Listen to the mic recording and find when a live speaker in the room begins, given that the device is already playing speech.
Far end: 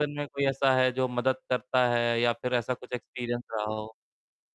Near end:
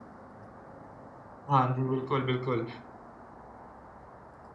1.5 s

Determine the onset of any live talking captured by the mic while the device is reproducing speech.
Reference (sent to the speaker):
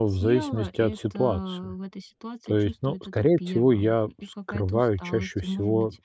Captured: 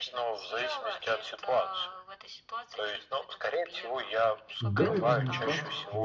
4.6 s

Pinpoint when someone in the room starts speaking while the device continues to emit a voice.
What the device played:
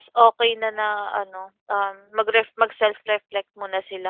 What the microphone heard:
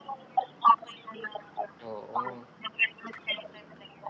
1.8 s

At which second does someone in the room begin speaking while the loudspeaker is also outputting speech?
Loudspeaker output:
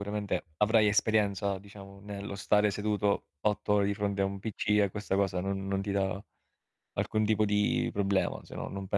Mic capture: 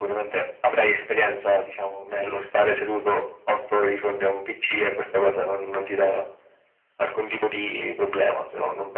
none

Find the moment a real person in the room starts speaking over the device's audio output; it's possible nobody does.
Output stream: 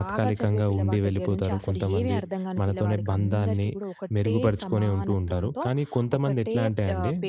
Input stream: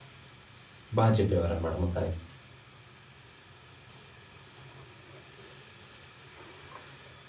1.0 s

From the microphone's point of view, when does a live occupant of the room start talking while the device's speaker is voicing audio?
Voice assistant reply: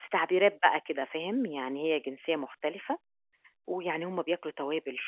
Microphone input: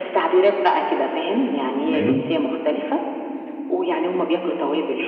1.8 s

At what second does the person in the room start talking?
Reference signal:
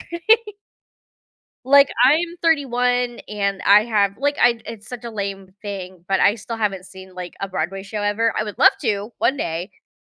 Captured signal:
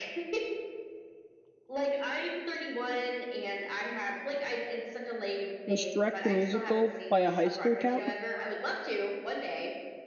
5.7 s

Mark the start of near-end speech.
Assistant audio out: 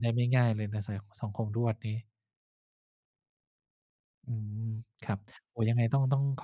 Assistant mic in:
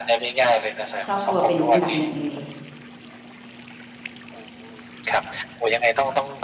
1.1 s

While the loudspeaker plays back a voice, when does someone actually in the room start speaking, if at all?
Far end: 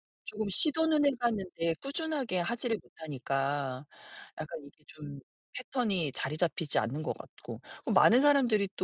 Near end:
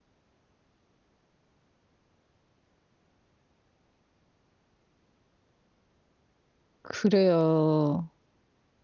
6.8 s

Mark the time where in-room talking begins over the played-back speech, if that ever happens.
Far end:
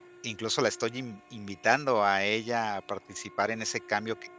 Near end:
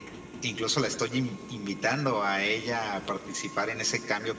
none

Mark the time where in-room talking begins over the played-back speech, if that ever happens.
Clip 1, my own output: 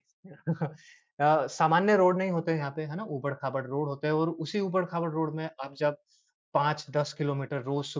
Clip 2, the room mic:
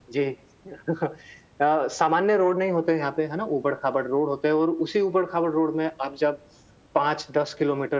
none

